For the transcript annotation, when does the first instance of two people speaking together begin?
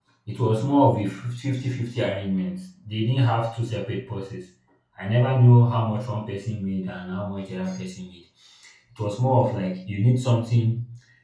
none

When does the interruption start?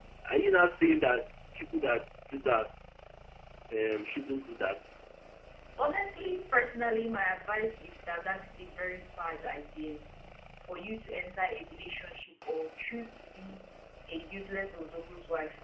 none

